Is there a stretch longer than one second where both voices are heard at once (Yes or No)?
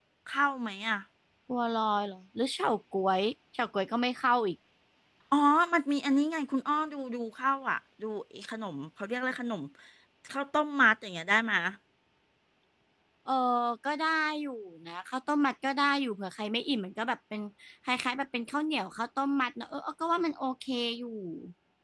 No